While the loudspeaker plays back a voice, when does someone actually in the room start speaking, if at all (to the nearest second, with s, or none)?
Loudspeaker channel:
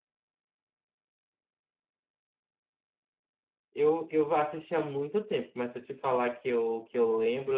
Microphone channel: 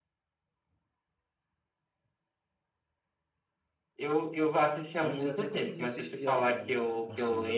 5 s